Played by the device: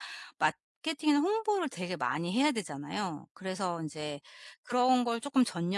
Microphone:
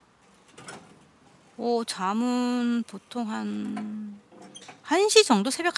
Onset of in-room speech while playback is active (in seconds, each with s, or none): 1.6 s